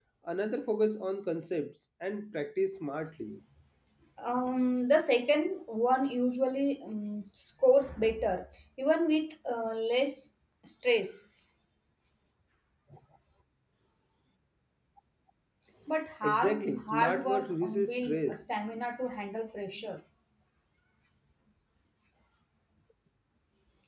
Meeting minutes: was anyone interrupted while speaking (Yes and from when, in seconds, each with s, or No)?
Yes, from 16.2 s